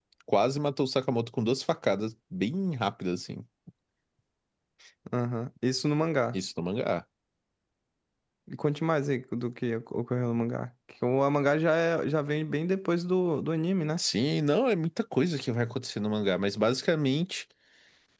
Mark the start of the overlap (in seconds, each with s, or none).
none